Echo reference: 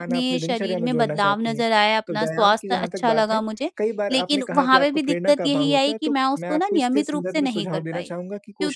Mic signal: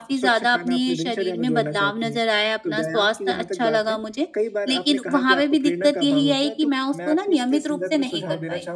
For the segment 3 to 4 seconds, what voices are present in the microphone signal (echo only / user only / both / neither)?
echo only